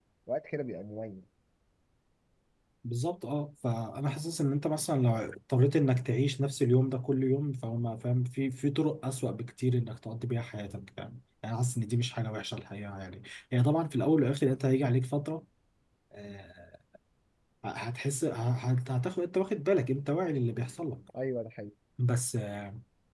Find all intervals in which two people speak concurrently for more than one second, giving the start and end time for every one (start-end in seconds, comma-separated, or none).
none